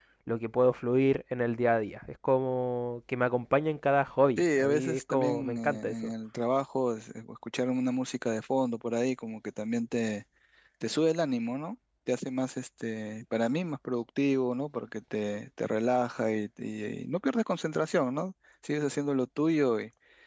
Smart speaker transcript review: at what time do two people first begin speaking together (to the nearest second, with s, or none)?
4 s